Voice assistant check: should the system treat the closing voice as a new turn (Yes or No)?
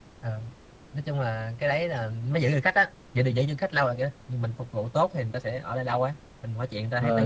Yes